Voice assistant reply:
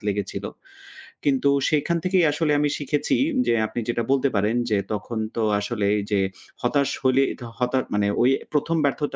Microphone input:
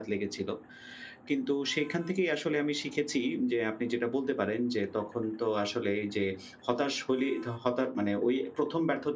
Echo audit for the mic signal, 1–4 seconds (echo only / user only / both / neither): echo only